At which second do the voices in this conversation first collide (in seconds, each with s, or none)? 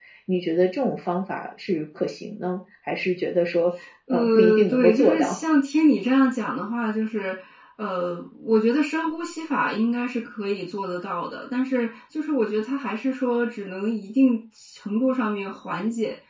4.1 s